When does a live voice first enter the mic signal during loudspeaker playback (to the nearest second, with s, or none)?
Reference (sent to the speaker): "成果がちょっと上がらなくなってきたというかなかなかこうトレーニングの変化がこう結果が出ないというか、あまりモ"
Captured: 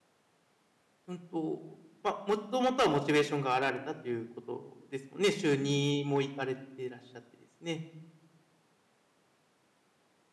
1 s